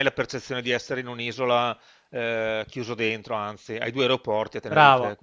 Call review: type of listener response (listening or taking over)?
taking over